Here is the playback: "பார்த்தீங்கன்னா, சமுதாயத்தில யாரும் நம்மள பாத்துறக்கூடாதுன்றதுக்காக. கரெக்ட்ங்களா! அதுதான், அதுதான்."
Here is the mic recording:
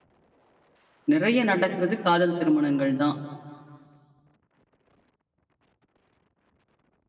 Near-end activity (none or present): present